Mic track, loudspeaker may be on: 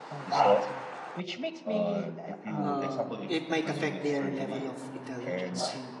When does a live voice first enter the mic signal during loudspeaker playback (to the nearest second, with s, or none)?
3 s